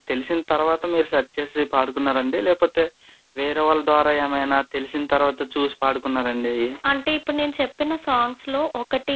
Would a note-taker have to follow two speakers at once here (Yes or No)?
No